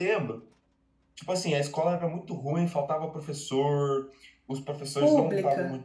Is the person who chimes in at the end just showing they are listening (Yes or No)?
Yes